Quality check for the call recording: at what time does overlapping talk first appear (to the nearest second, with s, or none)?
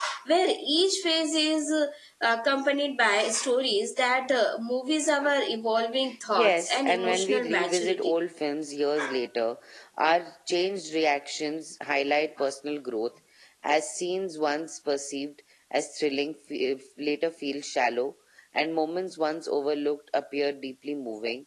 6 s